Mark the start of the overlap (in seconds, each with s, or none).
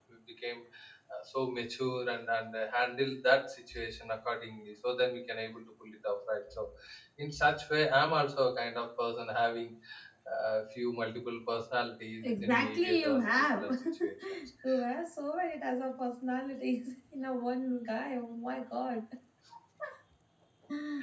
12.2 s